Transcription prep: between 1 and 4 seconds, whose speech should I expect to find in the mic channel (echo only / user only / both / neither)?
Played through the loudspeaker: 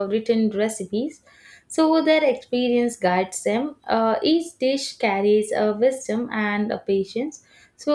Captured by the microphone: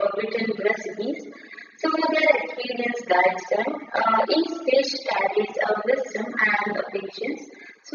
echo only